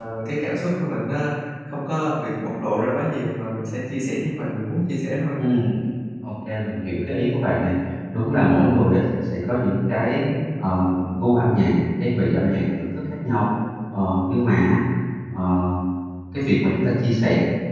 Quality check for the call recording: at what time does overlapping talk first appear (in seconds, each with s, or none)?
none